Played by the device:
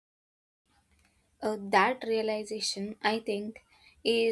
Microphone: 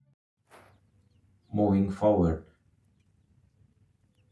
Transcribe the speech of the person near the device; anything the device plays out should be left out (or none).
moving forward